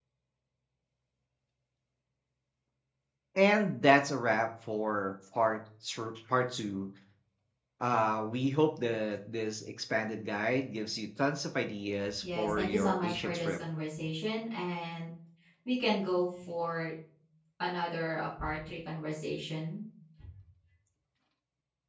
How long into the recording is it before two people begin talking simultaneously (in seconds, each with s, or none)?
12.2 s